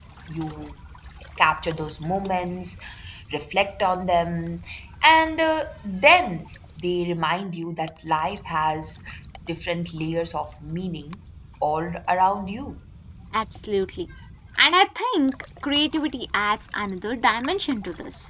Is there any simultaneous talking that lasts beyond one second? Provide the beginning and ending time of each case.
none

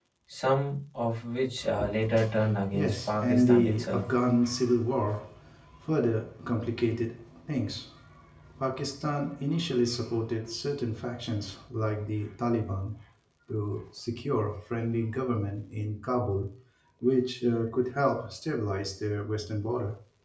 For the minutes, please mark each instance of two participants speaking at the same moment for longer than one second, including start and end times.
2.7-4.0

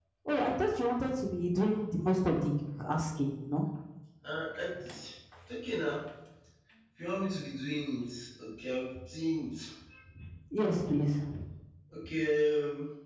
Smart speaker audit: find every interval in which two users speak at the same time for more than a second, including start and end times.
none

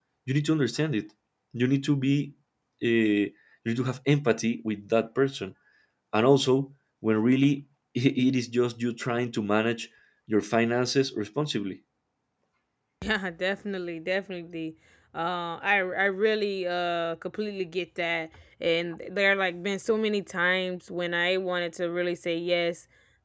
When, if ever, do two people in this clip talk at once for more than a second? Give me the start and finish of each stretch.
none

